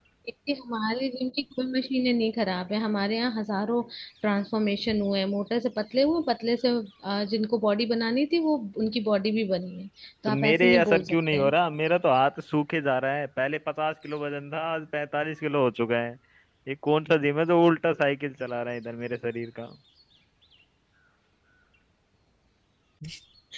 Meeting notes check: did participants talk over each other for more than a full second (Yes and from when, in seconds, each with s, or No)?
Yes, from 10.3 s